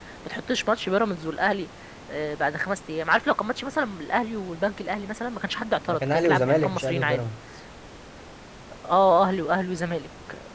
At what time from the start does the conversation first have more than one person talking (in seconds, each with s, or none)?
5.9 s